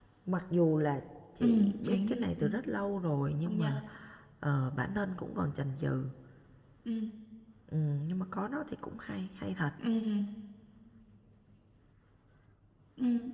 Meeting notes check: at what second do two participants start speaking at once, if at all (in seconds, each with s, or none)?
1.4 s